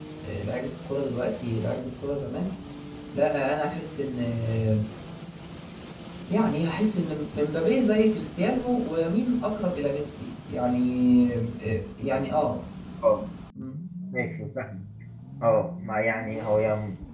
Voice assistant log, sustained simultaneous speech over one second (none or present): none